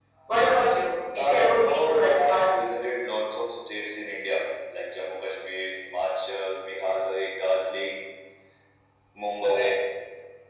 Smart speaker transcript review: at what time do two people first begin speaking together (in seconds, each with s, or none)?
1.2 s